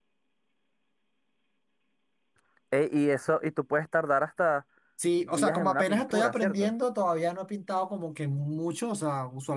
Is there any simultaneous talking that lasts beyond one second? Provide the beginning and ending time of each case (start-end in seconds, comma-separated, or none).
5.2-6.7